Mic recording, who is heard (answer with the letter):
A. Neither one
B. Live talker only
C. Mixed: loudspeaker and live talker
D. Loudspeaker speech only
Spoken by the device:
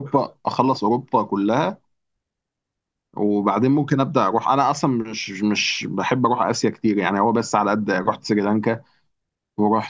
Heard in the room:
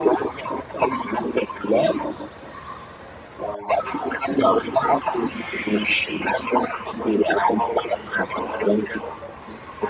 D